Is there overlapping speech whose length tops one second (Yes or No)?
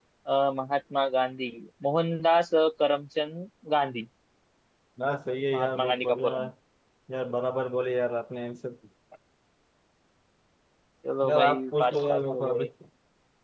Yes